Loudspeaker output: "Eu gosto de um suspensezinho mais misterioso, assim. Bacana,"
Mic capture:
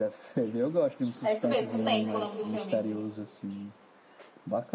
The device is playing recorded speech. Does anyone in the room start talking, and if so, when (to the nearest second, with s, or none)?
1 s